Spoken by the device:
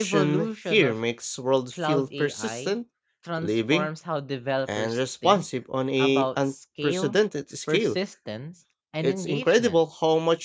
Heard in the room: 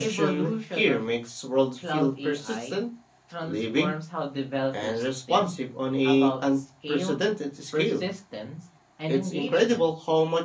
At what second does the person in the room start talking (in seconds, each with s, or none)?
none